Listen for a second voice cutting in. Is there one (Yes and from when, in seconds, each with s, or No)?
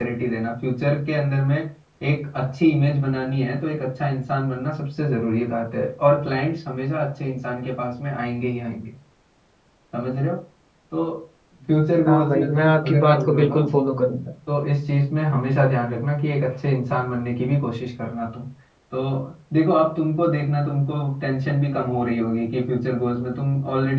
Yes, from 12.0 s